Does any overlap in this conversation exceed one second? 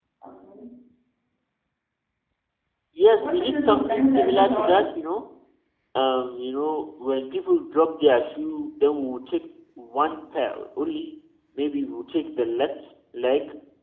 Yes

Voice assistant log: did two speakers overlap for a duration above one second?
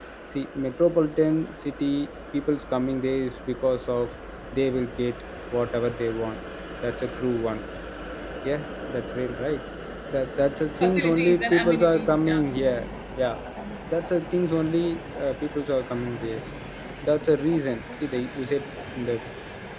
Yes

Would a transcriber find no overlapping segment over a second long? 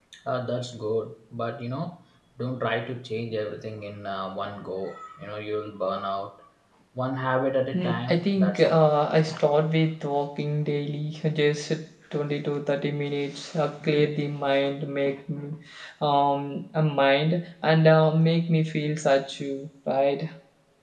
No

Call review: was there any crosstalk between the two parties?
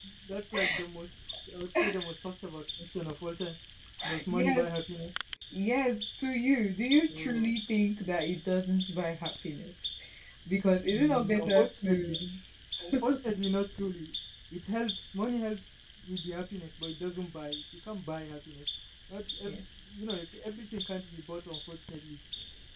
Yes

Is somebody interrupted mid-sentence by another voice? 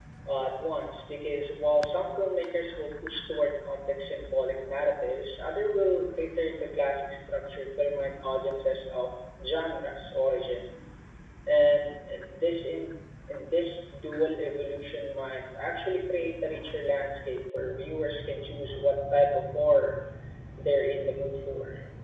No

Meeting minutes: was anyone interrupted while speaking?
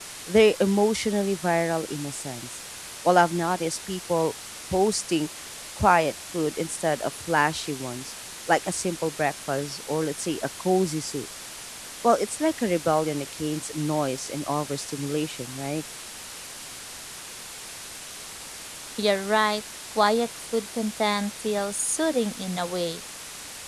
No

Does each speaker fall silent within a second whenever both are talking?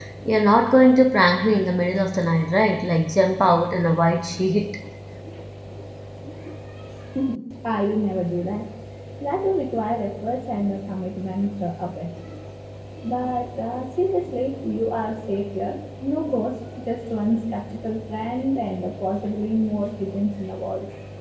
Yes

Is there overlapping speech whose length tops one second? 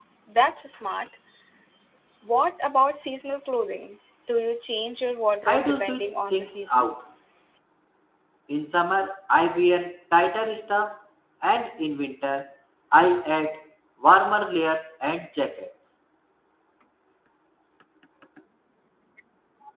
Yes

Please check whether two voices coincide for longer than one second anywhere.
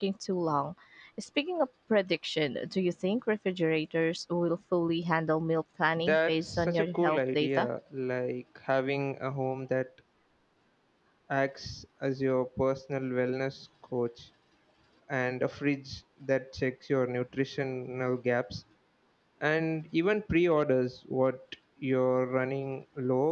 Yes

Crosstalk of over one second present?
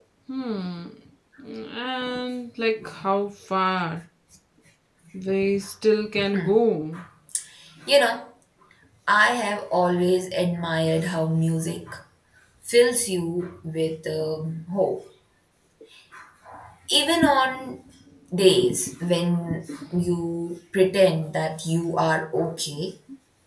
No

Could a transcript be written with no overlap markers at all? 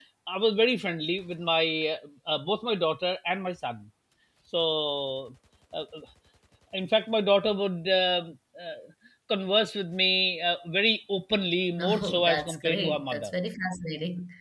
No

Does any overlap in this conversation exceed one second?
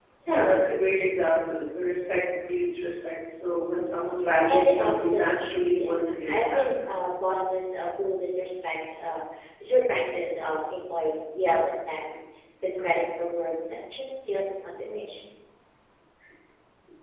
Yes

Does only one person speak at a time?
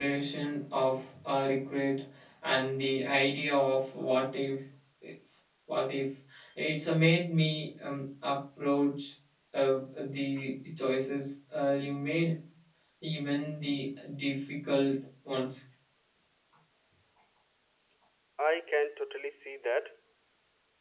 Yes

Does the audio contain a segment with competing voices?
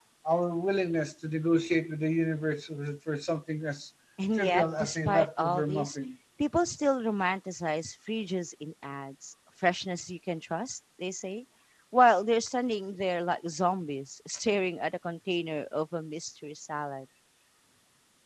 Yes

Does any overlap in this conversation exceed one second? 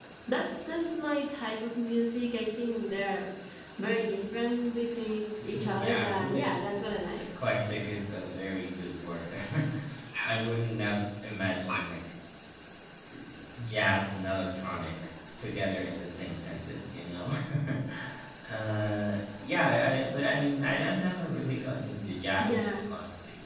Yes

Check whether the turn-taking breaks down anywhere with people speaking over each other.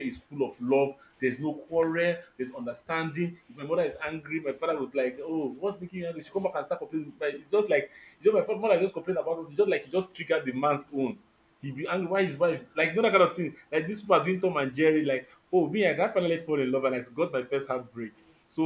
No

